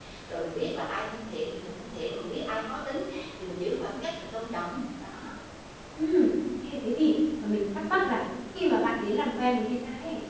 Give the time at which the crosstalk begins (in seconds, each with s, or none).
none